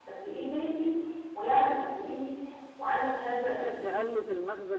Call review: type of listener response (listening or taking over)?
taking over